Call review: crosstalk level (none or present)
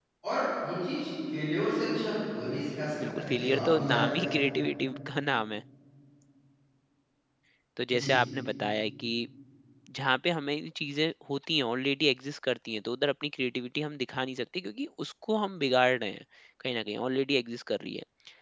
present